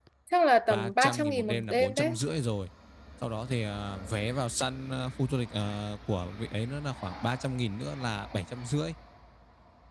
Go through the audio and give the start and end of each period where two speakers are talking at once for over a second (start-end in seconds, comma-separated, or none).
0.7-2.2